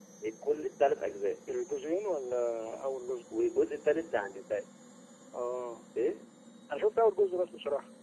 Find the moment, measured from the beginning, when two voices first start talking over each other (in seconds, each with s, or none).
none